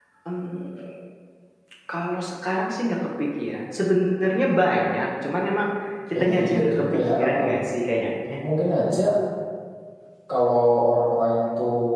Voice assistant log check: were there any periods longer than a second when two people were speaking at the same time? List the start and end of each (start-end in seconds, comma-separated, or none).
6.1-7.4